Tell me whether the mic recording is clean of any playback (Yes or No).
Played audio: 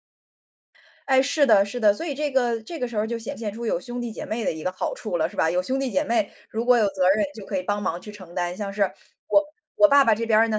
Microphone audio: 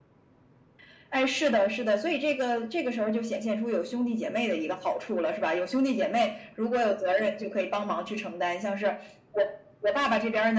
No